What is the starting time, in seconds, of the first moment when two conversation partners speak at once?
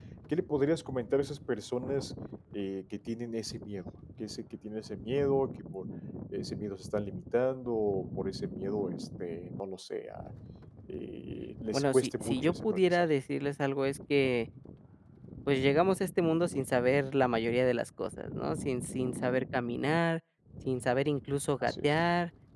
12 s

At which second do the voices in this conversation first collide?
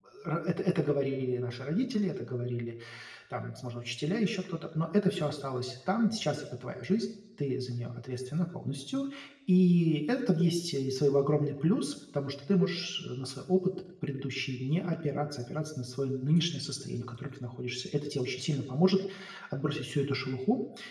none

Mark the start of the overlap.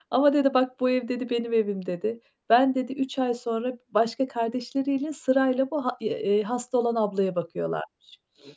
none

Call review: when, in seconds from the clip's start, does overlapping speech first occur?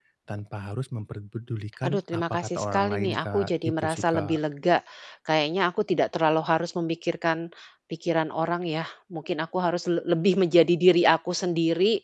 2 s

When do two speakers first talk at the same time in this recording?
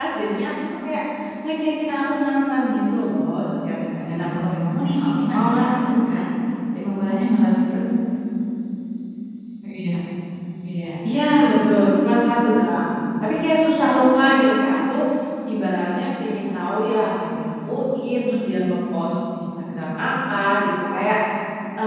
4 s

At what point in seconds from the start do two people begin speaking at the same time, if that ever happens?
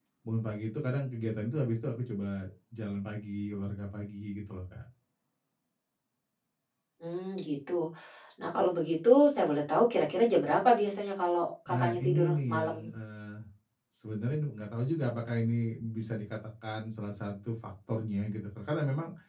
12 s

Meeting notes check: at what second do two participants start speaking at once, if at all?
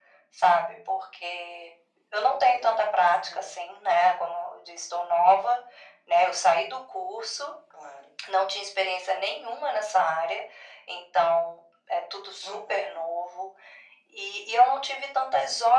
2 s

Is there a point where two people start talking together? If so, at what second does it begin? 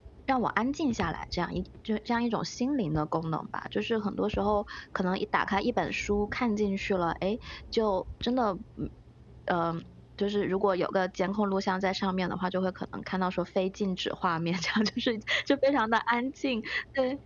none

